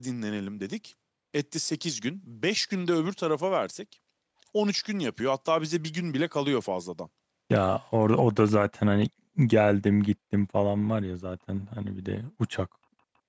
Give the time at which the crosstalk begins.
none

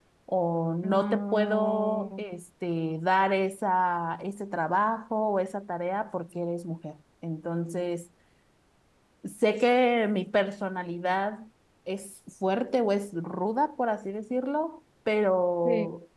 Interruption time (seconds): 1 s

